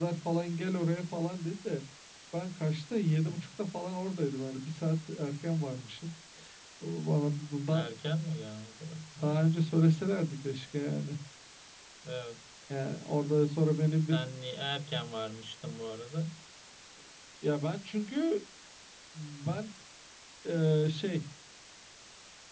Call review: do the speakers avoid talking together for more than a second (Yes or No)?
Yes